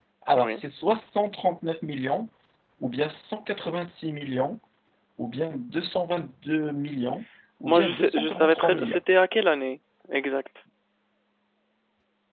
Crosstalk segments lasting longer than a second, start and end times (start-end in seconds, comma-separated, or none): 7.6-9.0